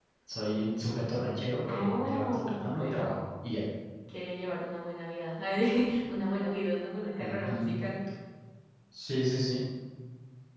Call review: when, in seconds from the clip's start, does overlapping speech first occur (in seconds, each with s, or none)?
1.7 s